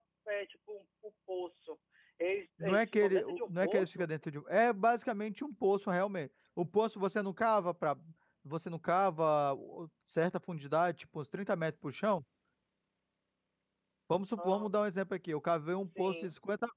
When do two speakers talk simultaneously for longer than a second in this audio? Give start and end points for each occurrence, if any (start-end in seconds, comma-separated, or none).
2.6-4.1